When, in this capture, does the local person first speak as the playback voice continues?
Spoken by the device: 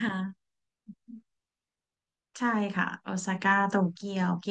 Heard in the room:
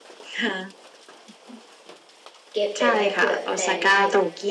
3 s

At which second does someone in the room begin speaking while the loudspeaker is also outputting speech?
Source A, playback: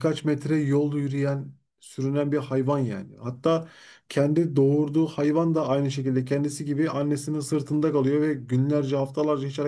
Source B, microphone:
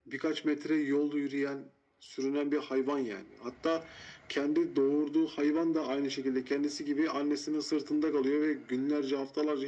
none

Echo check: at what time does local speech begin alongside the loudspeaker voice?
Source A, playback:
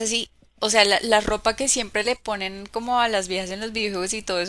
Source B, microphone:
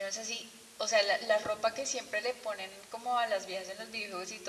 none

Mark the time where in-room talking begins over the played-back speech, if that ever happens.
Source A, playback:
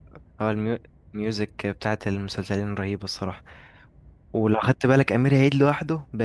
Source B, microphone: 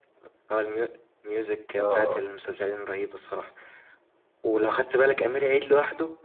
2 s

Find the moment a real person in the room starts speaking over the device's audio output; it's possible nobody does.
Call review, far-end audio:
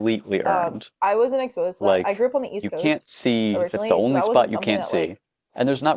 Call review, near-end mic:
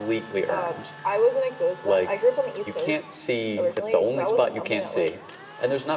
none

